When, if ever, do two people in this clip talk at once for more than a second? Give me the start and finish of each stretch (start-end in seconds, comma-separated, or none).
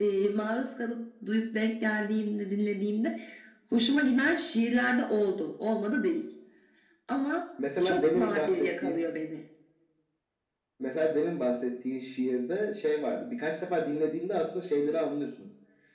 7.8-9.0